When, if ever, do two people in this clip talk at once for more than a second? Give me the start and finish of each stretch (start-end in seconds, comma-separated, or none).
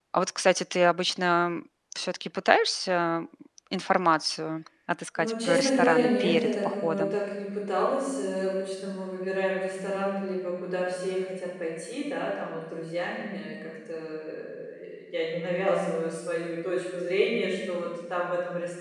5.2-7.2